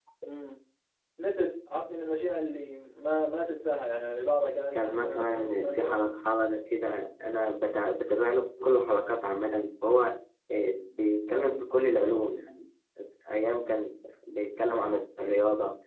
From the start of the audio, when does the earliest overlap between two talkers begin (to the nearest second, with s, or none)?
5 s